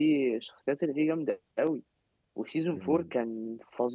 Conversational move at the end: listening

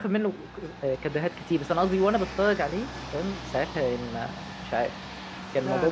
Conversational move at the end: taking over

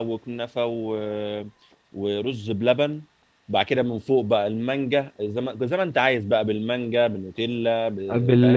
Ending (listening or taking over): taking over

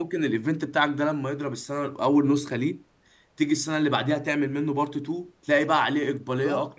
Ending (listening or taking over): taking over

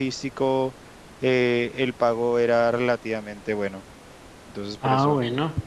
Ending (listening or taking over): taking over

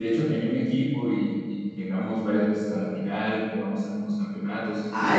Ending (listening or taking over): taking over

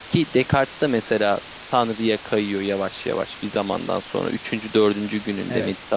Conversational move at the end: listening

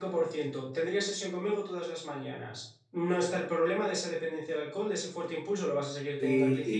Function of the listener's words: taking over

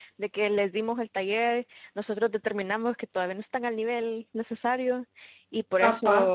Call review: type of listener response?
listening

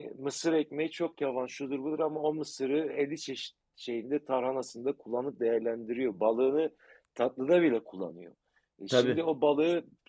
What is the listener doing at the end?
listening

